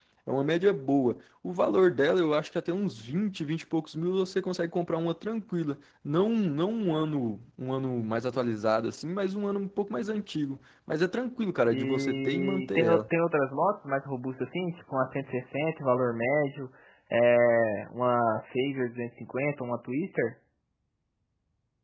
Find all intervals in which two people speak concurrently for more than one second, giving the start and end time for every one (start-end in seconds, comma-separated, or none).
11.7-13.0